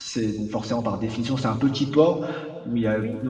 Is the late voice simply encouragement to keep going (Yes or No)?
Yes